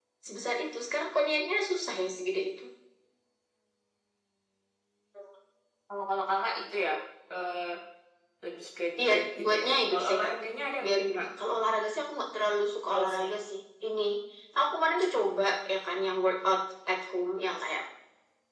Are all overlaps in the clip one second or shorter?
No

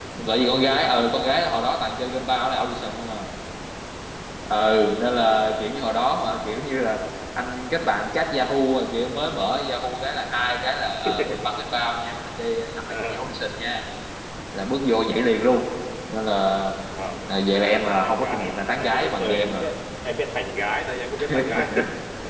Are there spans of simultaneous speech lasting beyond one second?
Yes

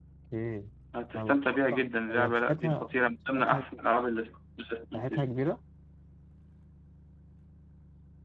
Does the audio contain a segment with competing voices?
Yes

